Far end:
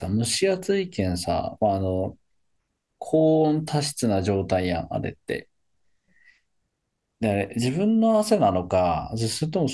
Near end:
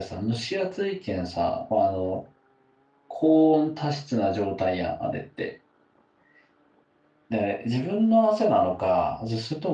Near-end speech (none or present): none